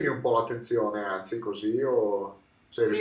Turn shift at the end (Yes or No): Yes